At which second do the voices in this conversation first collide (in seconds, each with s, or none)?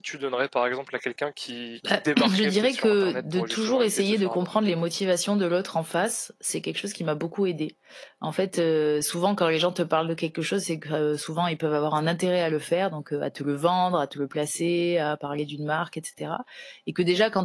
1.8 s